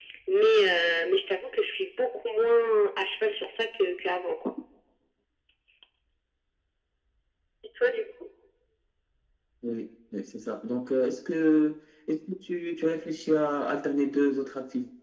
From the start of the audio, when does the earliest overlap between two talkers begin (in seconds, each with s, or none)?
none